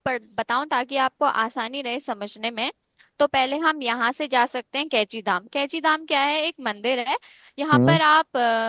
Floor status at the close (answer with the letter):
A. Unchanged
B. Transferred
A